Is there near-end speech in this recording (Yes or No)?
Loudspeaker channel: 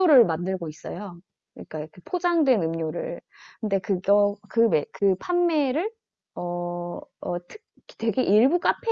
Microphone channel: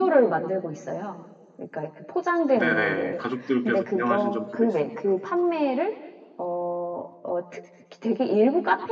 Yes